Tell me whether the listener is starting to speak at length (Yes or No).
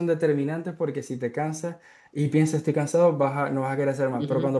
No